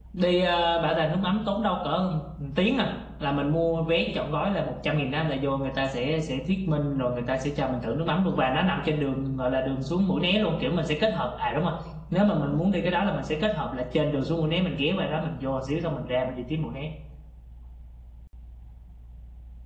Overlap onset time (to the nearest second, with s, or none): none